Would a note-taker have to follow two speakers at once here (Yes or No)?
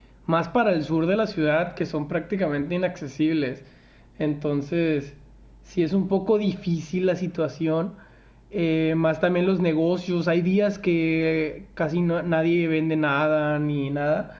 No